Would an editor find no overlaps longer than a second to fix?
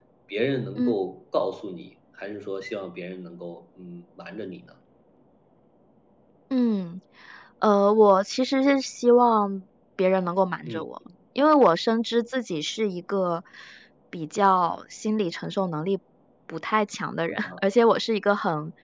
Yes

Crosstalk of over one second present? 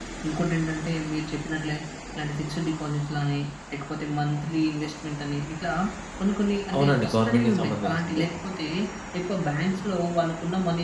Yes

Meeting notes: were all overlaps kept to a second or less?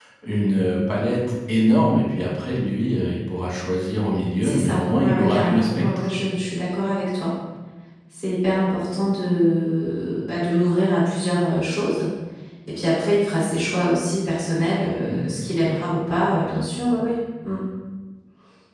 No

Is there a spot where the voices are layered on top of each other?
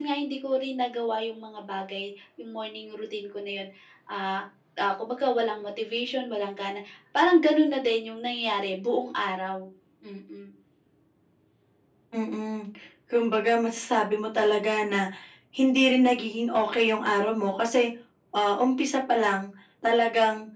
No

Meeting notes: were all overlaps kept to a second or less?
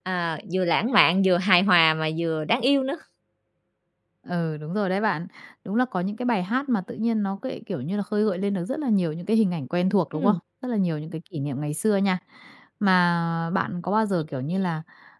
Yes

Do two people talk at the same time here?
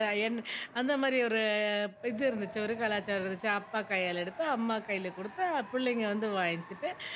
No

